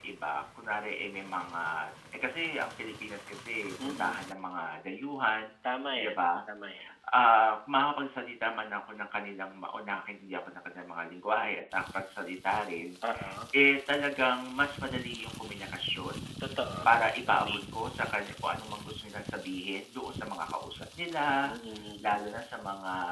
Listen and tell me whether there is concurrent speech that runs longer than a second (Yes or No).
No